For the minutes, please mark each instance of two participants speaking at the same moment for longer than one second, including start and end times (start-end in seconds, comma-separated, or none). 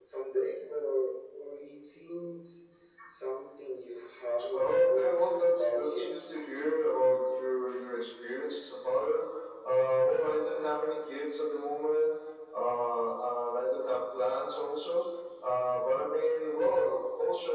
4.5-6.1